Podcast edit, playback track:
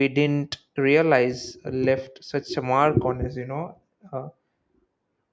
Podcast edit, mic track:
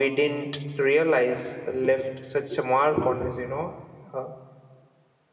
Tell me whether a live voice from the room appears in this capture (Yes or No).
No